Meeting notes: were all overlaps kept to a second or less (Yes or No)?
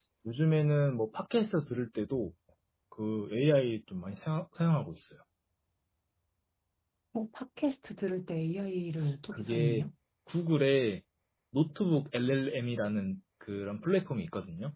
Yes